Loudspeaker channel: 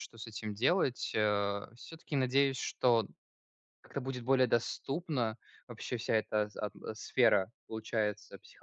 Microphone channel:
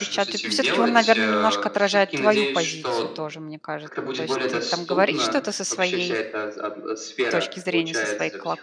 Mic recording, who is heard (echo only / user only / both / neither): both